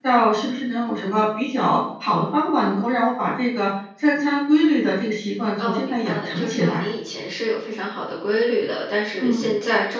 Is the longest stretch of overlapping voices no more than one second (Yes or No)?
No